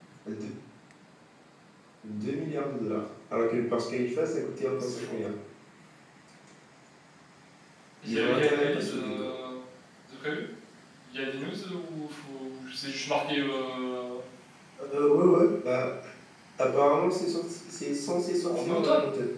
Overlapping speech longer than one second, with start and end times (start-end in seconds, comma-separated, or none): 8.1-9.3